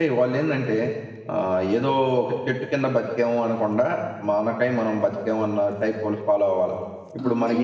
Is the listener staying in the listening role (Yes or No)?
Yes